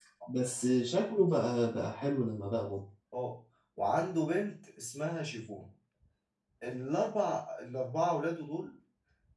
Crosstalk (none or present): none